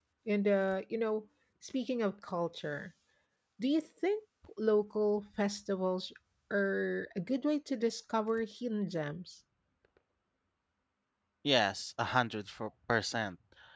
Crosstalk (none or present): none